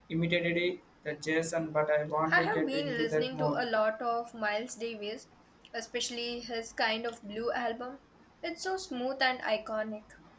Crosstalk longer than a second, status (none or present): present